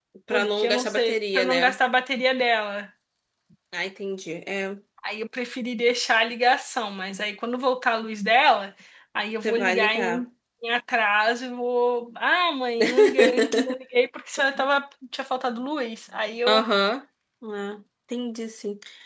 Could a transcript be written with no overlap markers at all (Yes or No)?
No